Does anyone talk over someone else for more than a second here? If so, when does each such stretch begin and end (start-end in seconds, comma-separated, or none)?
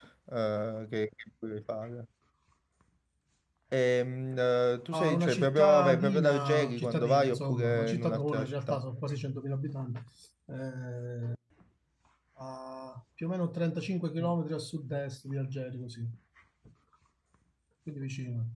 4.9-8.8